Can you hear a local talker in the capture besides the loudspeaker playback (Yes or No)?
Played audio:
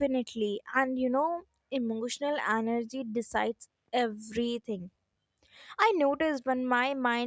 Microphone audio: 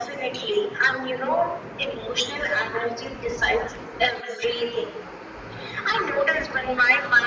No